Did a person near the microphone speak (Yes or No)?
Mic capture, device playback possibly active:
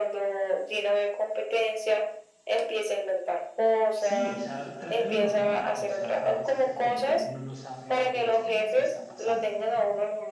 Yes